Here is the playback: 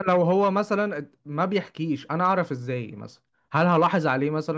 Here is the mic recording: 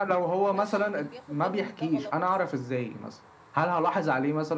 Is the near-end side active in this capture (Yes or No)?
Yes